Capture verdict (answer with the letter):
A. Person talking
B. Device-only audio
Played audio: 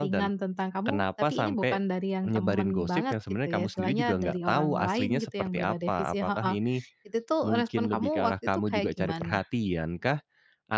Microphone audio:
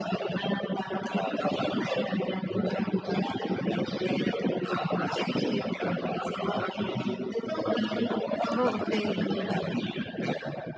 A